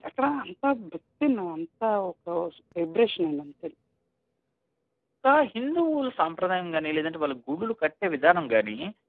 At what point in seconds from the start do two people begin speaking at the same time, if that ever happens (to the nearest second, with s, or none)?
none